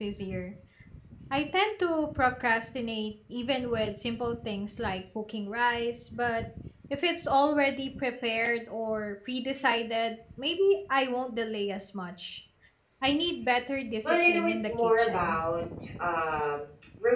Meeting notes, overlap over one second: present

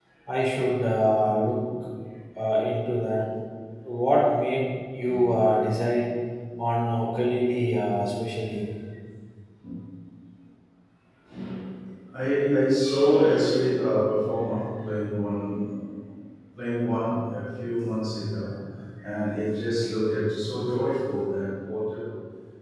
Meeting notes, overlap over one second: none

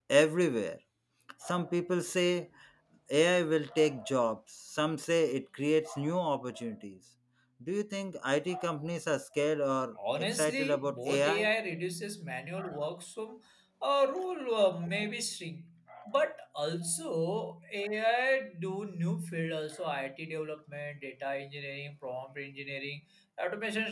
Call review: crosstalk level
present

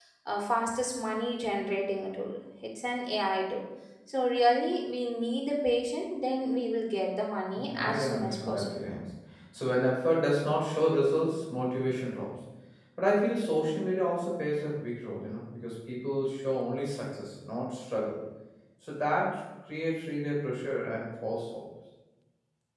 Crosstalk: present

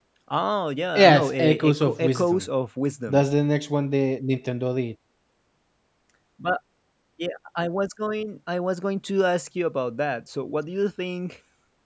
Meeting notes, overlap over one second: present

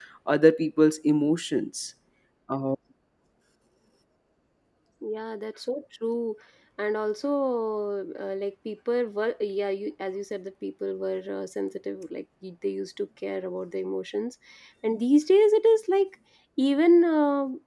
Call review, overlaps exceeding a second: none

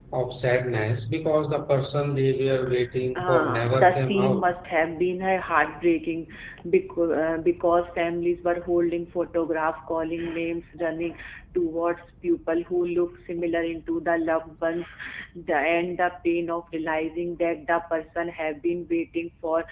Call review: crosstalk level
present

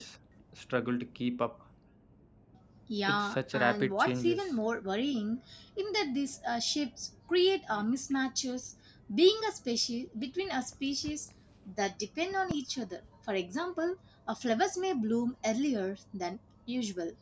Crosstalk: present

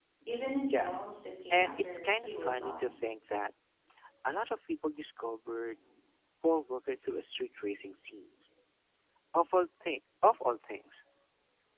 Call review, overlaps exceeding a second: present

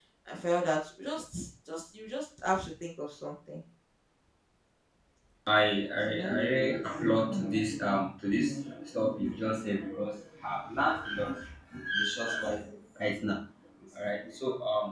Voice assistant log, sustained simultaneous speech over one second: none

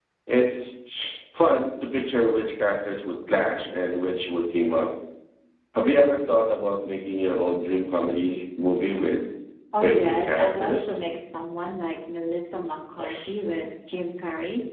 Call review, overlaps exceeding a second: present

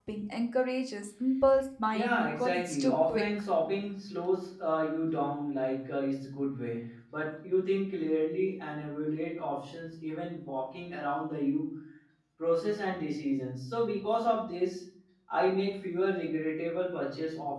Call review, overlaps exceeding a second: present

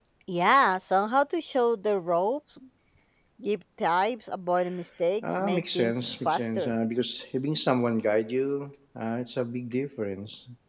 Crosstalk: present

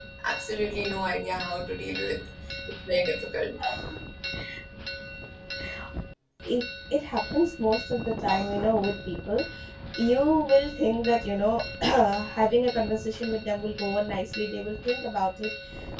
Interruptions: none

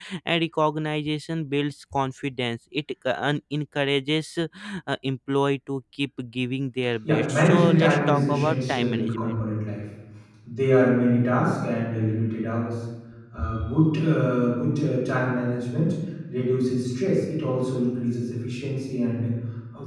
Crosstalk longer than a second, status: present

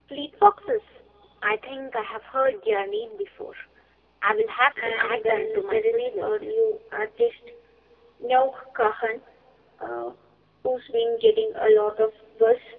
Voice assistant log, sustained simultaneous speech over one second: present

